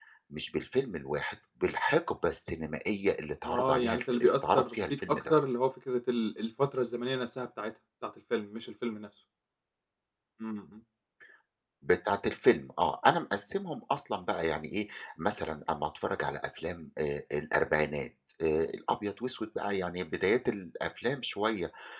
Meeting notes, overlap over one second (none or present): present